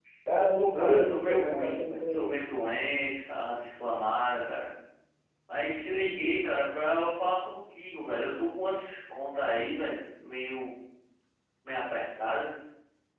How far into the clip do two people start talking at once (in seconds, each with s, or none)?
0.5 s